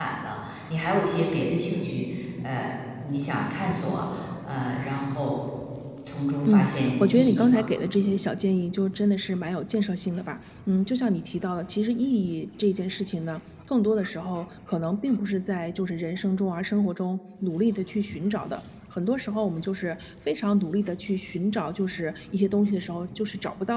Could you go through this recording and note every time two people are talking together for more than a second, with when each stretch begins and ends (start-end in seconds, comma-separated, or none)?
6.5-7.7